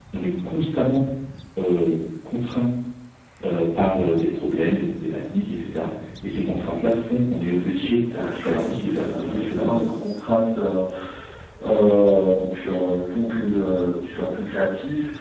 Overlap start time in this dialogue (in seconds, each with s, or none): 8.1 s